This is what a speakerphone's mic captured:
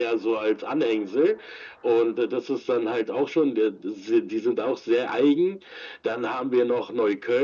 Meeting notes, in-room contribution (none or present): none